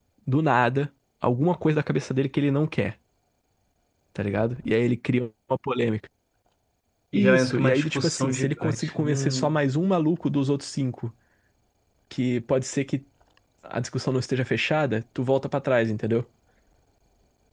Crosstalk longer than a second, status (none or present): present